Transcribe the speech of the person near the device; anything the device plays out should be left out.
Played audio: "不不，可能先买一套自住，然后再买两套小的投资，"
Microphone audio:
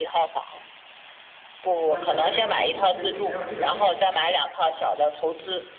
我觉得自己一直就没有这个运气。

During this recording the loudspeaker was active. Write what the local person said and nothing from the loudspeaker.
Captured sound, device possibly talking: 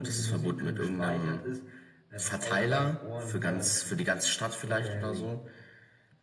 none

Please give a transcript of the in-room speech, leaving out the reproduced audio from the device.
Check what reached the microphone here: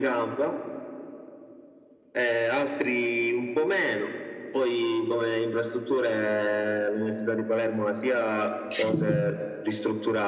Sì, sì.

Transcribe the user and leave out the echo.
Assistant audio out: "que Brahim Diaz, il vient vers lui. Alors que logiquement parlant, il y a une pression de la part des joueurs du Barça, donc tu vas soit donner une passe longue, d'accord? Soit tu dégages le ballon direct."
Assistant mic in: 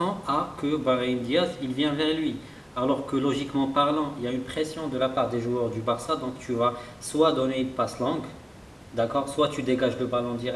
none

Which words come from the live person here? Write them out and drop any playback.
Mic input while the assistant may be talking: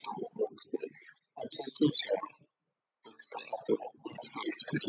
none

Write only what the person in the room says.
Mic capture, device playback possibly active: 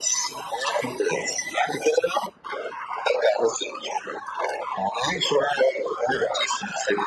none

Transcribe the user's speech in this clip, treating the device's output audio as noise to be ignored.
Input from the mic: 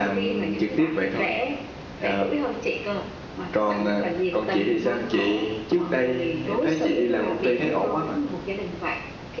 none

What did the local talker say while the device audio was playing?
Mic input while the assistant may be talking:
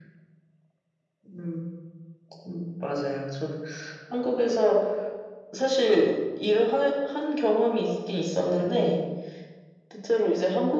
none

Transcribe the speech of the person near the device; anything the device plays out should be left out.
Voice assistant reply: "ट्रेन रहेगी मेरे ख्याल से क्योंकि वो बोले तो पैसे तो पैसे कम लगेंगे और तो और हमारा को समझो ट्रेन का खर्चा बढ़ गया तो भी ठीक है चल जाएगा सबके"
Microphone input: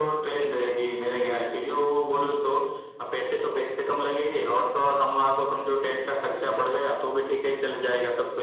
none

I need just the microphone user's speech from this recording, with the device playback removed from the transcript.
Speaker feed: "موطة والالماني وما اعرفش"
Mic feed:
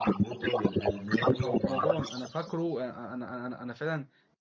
آه، وكان في رمضان انا فاكره آه، انا انا انا, أنا فعلا

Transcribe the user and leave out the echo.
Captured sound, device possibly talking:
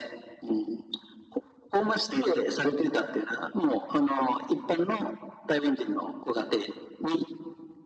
none

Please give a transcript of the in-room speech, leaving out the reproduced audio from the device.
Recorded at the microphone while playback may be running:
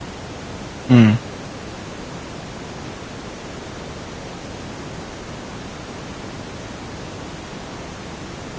Hum.

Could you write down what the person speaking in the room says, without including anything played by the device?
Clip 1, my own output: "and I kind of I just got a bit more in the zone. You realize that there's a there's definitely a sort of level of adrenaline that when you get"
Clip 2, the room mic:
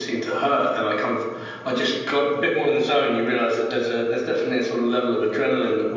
none

